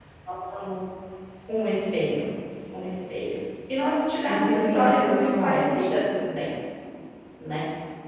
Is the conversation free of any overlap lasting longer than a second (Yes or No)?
No